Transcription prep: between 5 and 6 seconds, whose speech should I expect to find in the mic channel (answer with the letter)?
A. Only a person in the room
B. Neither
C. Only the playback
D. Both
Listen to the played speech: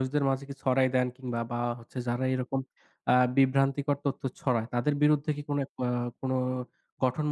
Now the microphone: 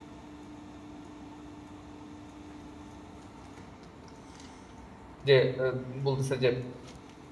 A